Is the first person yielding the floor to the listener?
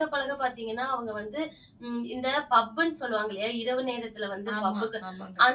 No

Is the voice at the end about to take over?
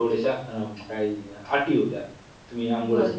Yes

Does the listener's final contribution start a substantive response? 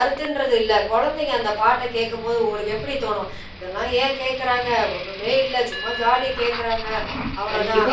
Yes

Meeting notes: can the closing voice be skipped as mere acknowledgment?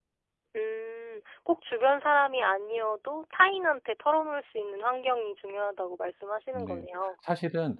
No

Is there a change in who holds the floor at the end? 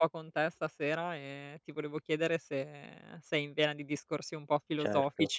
Yes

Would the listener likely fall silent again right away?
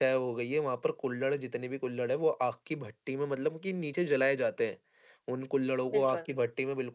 Yes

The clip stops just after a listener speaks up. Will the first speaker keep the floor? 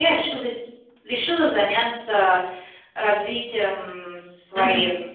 Yes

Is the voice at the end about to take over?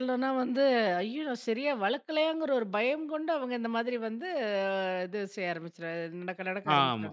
Yes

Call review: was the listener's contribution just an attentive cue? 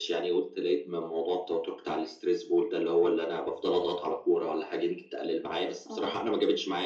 Yes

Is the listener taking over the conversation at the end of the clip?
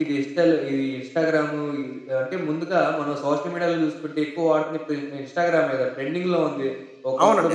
No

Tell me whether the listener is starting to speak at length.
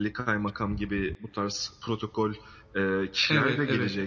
Yes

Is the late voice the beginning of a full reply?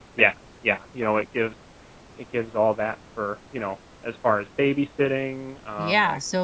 Yes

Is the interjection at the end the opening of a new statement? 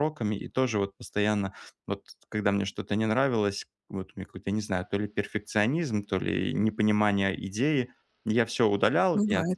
No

